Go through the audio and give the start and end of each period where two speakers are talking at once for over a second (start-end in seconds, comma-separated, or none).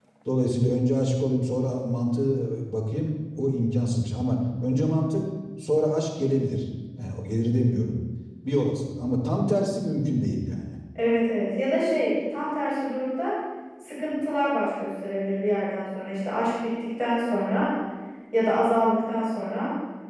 none